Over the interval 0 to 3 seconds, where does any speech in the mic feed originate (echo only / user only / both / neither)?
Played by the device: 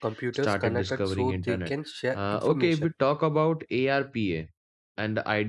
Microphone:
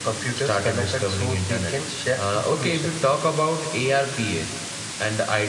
echo only